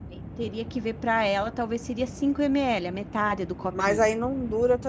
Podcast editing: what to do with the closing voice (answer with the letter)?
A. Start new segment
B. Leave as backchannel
A